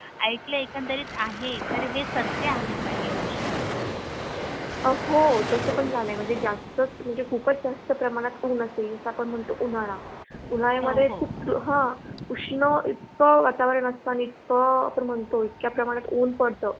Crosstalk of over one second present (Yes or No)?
No